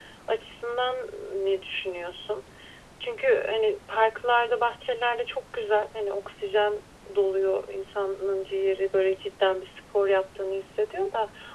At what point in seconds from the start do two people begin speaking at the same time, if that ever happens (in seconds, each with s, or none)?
none